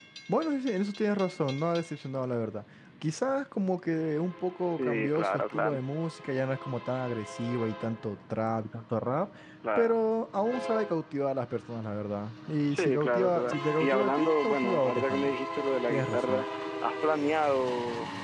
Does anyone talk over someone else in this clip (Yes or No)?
Yes